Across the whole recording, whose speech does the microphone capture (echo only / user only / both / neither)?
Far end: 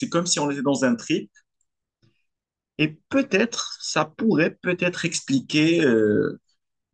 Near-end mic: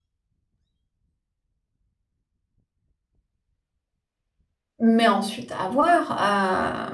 user only